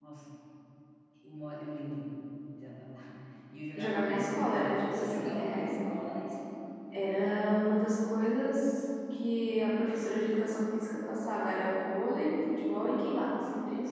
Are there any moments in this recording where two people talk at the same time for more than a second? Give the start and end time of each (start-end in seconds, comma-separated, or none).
3.8-5.8